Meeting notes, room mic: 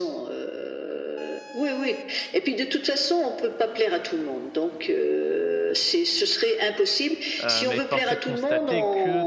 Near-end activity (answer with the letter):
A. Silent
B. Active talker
B